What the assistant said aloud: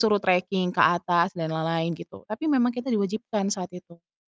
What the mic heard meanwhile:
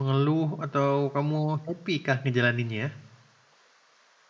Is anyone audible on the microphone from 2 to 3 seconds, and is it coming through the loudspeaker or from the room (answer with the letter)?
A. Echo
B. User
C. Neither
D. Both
B